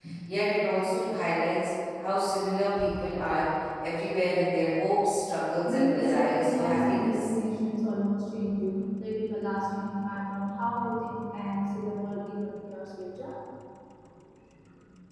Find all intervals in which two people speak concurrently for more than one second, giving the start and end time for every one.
5.6-7.3

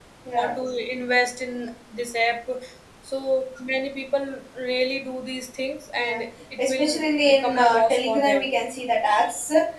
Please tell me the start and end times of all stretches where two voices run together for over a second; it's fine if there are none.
6.6-8.5

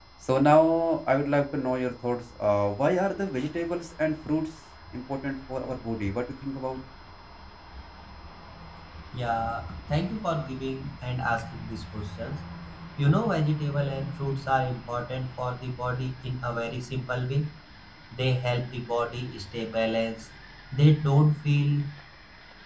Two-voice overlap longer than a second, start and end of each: none

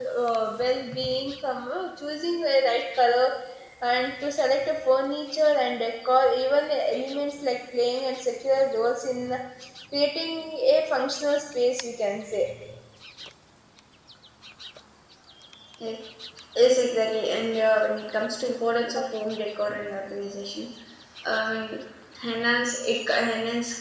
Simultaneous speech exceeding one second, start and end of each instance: none

